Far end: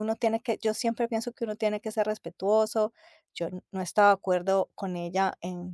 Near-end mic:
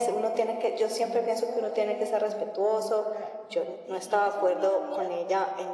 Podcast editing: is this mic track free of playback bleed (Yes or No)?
No